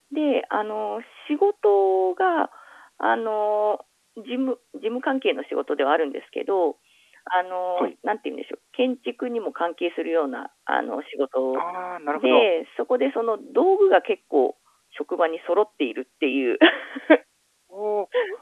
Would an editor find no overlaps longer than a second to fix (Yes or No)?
Yes